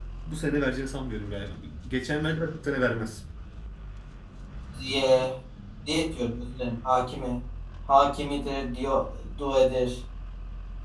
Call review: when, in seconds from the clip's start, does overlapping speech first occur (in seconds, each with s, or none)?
none